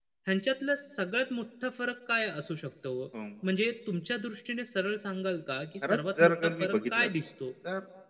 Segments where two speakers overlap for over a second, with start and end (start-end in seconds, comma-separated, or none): 5.8-7.1